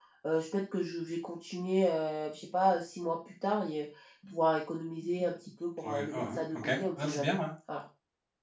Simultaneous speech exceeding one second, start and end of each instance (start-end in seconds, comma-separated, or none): 5.8-7.3